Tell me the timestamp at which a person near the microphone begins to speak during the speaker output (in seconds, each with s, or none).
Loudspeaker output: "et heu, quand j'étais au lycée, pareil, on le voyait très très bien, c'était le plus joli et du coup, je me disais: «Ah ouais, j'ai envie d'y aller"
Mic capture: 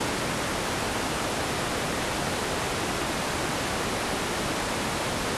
none